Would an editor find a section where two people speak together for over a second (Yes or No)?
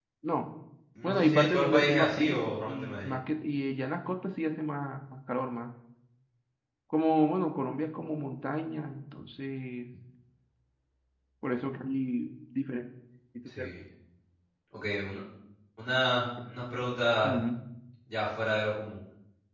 Yes